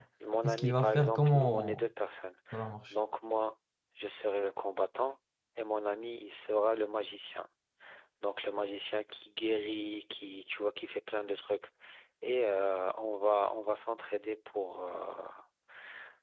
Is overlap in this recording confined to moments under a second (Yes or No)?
No